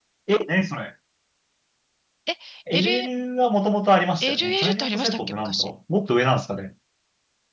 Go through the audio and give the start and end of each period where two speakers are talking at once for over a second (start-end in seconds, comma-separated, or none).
4.2-5.7